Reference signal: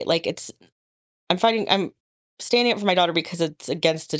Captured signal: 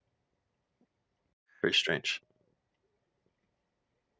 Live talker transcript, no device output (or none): very strange.